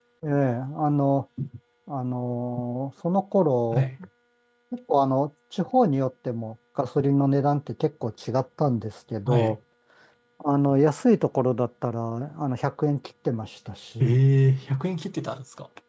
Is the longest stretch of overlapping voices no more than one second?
Yes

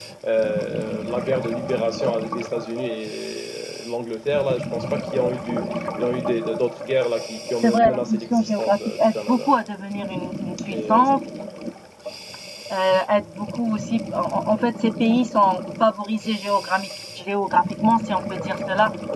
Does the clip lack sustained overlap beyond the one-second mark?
No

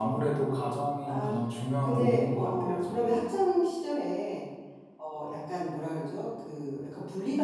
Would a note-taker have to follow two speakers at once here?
Yes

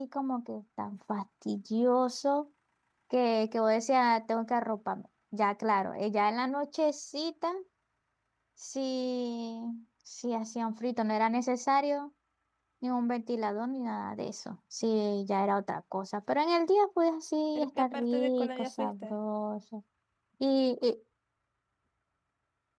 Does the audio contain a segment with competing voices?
Yes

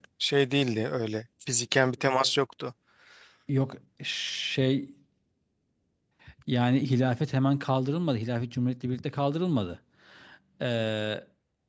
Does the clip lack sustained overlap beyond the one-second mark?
Yes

